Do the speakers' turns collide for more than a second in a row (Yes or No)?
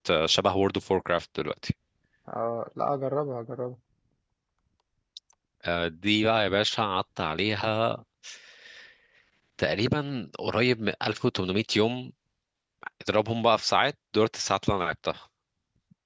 No